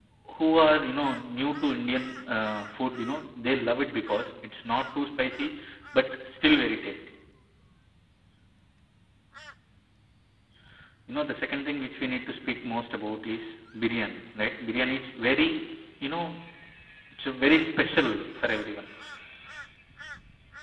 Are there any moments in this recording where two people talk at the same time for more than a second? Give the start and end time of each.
none

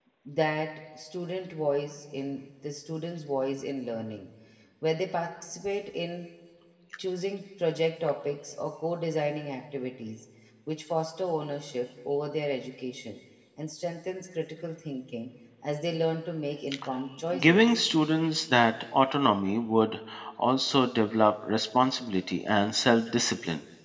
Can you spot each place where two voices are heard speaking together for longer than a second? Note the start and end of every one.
none

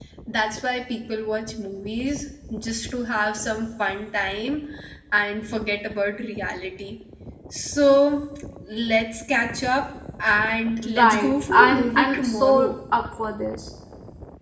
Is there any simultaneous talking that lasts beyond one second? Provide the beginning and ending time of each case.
11.0-12.7

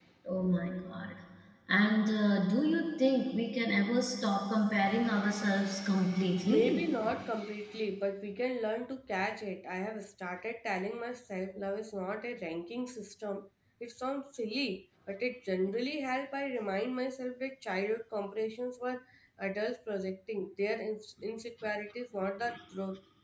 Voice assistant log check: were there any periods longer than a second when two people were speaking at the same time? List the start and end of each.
none

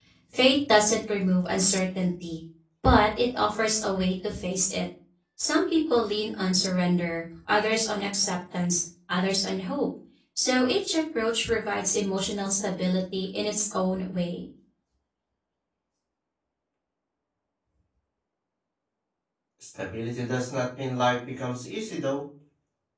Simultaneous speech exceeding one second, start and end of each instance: none

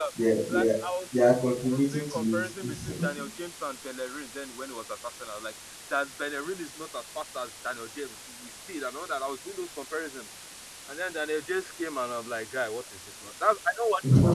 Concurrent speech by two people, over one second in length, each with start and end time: 1.2-2.9

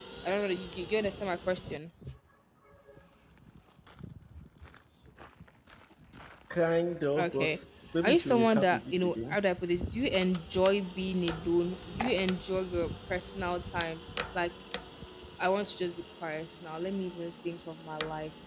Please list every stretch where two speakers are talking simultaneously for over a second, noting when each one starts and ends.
8.0-9.4

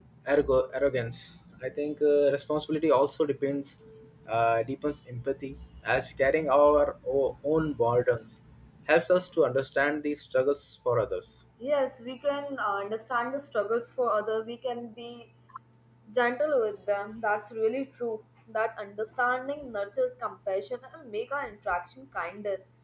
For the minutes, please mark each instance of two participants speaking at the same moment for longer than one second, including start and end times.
none

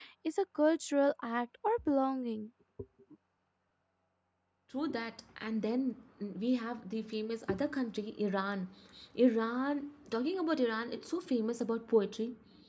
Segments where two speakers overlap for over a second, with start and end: none

